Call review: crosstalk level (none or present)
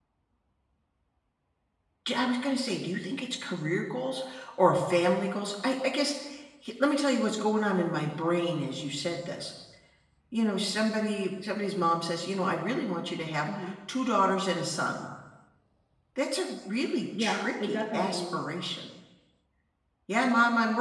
present